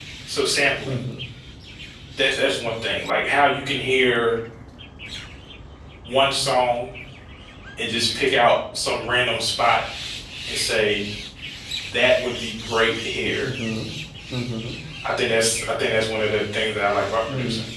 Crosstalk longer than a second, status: none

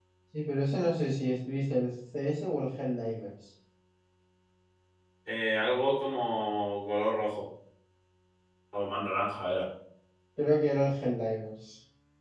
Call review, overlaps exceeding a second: none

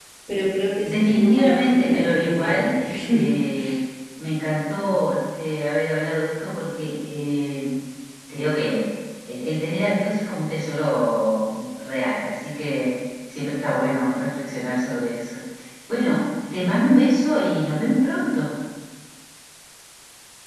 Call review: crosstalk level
present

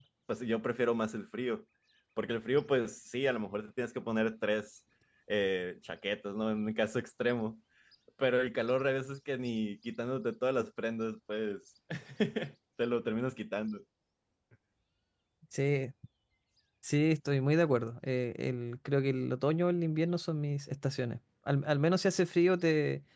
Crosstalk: none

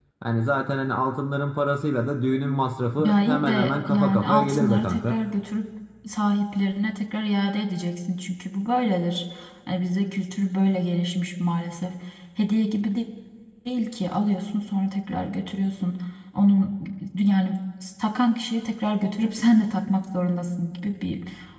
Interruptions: present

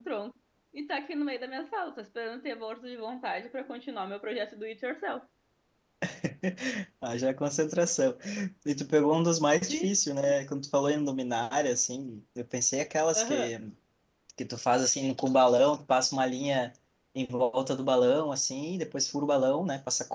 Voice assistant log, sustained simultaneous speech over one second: none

